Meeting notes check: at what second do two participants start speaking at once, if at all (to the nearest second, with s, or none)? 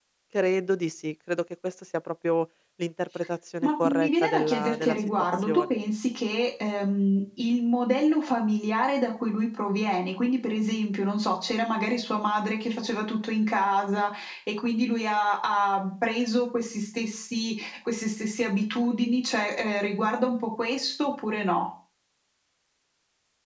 4 s